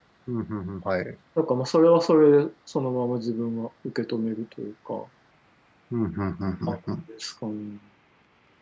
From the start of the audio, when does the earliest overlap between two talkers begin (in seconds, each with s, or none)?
none